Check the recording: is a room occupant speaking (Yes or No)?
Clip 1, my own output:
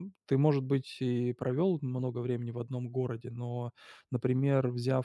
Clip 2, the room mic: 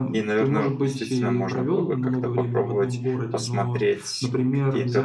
Yes